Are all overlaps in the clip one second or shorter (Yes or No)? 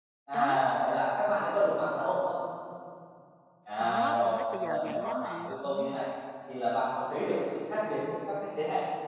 No